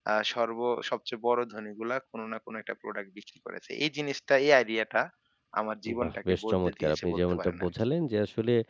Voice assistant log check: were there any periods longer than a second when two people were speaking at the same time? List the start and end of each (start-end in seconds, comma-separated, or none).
6.0-7.7